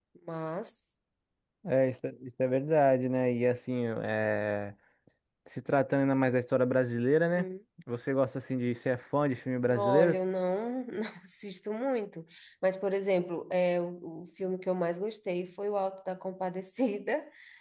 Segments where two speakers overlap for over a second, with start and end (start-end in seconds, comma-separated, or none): none